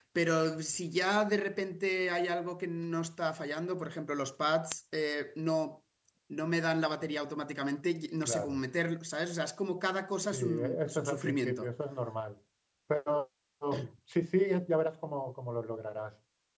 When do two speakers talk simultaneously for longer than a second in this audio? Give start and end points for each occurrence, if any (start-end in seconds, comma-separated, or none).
10.3-11.7